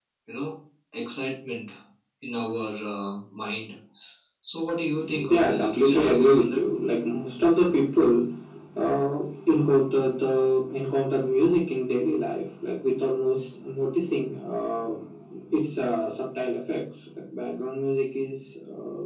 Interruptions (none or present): present